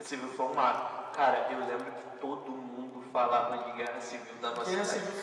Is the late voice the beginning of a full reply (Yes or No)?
Yes